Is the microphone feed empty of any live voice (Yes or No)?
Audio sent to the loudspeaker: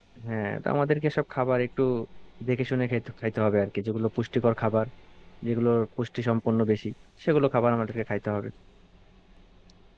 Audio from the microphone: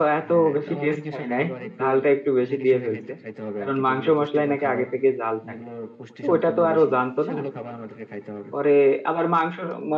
No